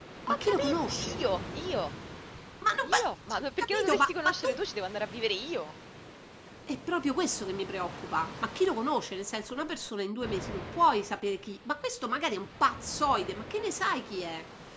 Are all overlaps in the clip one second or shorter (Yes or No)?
No